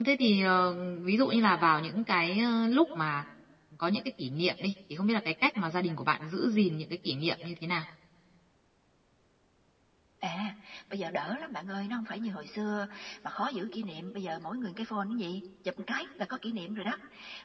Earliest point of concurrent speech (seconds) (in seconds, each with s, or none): none